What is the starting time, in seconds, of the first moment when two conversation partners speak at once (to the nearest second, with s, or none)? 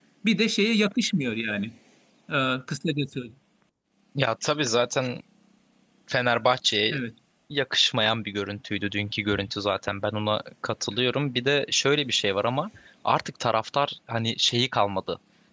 none